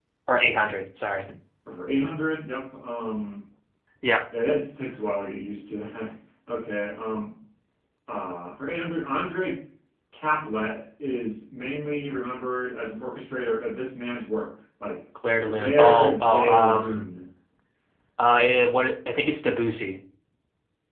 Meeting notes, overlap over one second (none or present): present